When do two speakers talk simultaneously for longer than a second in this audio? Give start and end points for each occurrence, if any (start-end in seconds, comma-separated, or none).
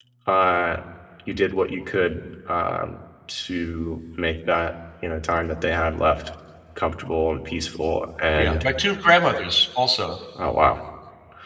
none